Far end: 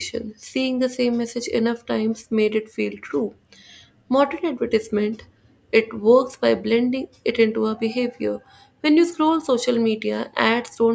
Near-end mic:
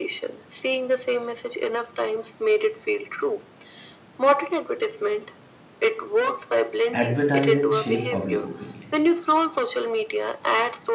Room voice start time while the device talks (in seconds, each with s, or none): 6.9 s